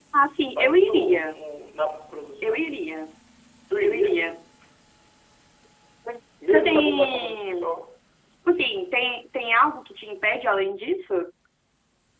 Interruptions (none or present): present